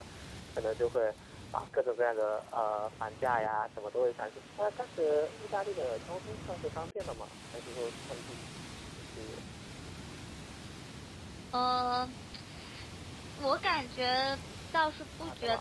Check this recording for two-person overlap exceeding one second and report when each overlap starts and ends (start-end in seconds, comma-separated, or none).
none